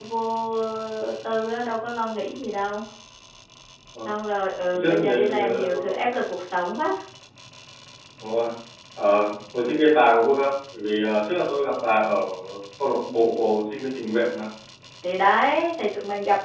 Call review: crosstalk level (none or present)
present